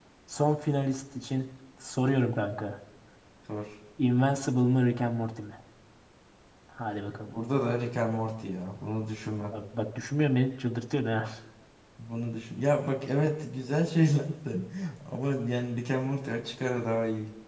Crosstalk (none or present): none